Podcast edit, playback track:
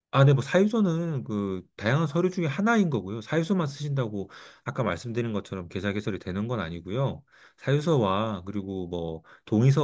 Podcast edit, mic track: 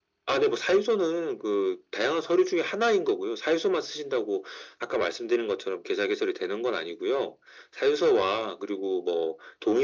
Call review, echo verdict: present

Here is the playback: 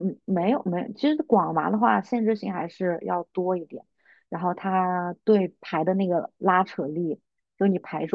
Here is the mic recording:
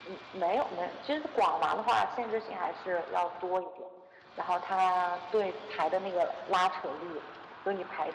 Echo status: present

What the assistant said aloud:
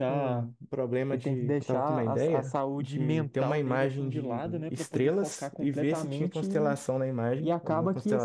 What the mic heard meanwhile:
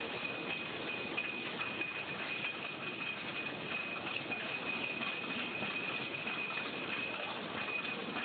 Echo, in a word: none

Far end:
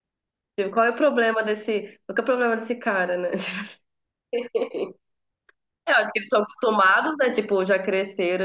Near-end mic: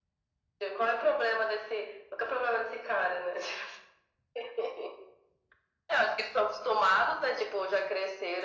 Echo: present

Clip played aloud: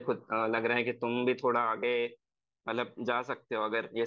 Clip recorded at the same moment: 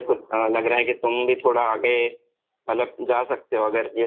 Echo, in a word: present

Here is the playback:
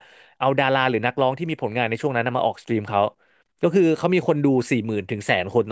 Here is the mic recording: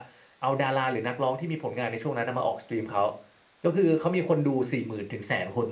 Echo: present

